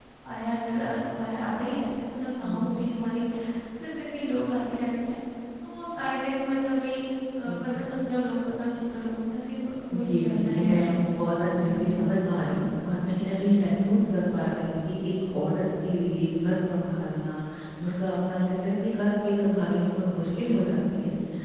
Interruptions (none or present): present